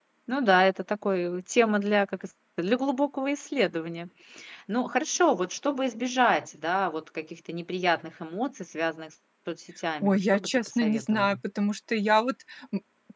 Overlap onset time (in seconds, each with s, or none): 10.0 s